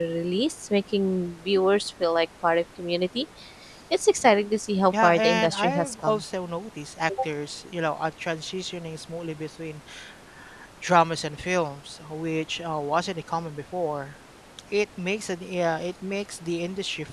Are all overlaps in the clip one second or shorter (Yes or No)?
No